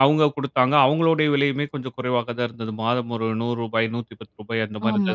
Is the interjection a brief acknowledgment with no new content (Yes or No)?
No